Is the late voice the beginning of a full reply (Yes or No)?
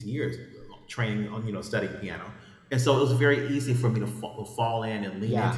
No